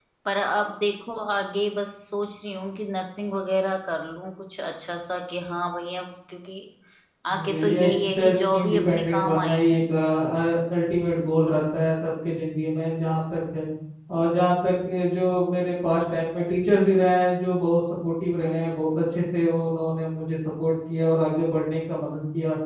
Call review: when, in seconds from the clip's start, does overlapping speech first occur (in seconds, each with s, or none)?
7.5 s